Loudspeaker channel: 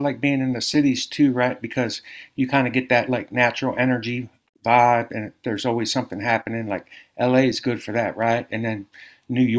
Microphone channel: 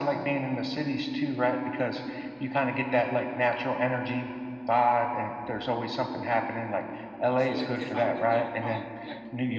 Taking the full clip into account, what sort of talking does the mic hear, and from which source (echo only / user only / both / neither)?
both